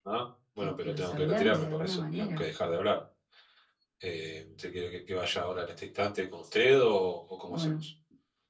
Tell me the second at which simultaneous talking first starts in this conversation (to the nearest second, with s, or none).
1 s